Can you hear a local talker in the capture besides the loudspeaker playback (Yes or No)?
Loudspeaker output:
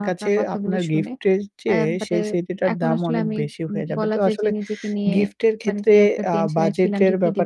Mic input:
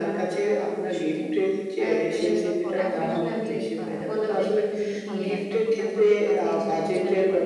Yes